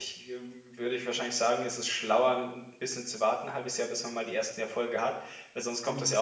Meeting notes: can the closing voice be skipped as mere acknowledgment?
Yes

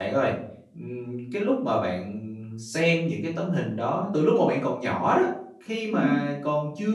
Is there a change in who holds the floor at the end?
No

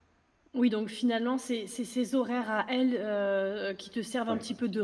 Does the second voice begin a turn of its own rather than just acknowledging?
No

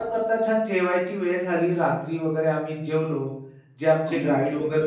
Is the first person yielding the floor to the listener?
No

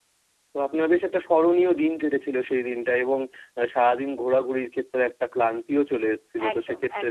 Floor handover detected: No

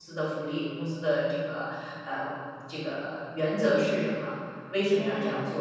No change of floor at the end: Yes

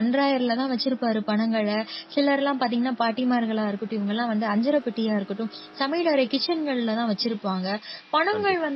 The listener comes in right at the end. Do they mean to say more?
No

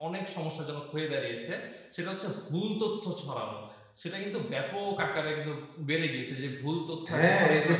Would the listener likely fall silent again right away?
No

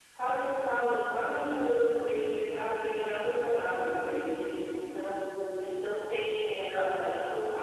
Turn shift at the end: No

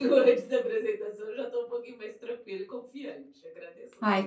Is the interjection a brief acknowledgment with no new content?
No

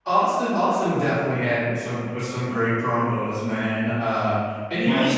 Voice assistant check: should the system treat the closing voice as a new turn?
No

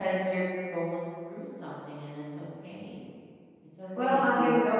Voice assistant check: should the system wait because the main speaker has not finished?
No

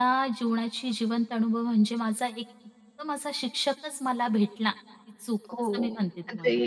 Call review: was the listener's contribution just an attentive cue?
No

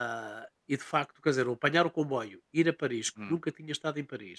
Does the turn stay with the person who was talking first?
Yes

